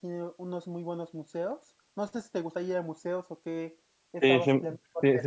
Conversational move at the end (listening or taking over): taking over